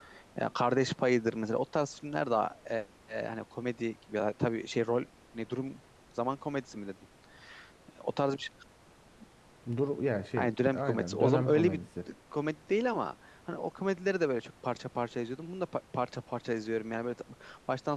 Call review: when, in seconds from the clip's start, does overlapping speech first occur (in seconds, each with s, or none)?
10.4 s